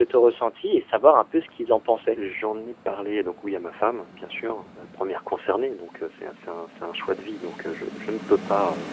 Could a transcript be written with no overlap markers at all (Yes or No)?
Yes